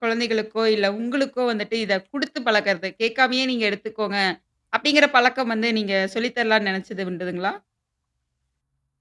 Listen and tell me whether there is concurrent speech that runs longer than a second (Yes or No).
No